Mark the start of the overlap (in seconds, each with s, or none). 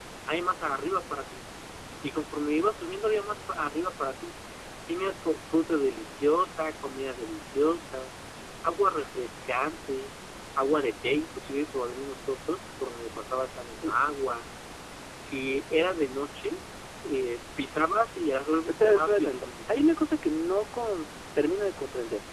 18.7 s